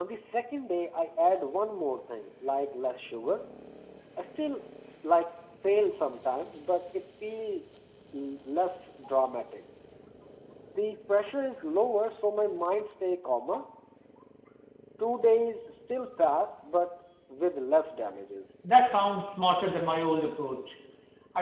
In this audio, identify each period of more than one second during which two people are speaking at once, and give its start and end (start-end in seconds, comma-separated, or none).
none